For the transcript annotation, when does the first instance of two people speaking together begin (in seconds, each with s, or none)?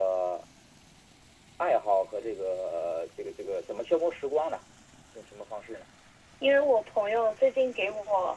none